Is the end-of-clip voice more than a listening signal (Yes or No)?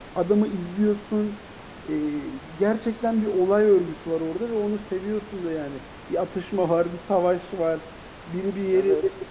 No